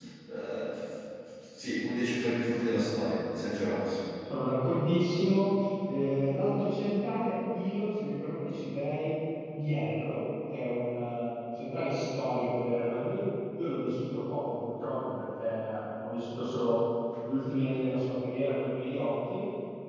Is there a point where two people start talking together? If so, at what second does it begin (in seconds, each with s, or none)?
none